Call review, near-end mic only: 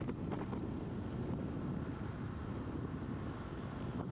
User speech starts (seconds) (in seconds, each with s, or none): none